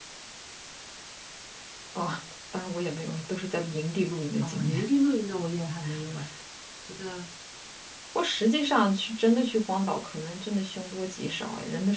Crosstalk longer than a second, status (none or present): none